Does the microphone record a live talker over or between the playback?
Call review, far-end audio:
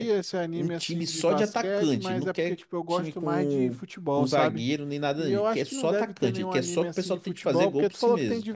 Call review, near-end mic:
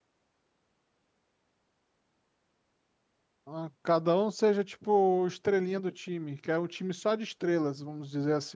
Yes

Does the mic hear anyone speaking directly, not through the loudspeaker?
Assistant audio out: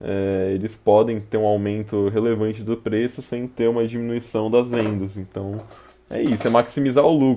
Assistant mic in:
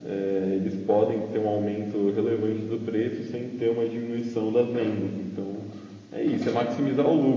No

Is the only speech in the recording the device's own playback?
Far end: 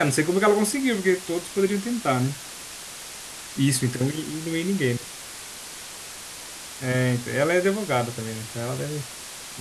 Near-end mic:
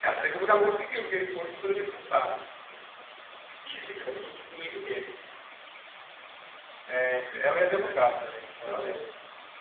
No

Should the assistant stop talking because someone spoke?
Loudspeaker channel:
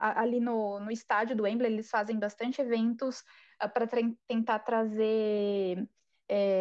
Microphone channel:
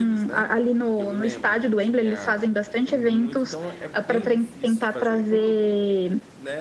Yes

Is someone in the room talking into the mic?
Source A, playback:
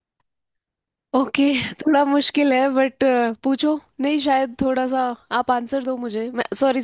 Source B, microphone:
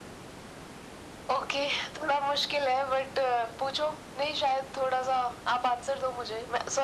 No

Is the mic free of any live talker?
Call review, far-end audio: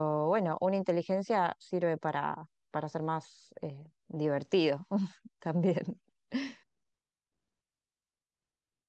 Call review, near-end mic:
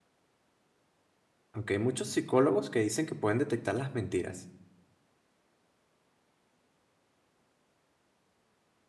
No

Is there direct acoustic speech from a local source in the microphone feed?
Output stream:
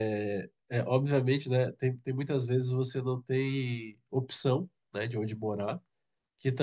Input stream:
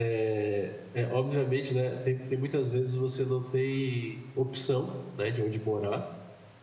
No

